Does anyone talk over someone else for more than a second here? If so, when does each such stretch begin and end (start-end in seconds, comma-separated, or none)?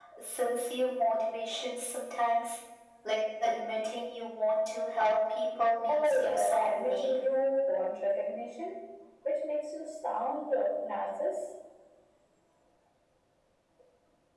5.9-7.2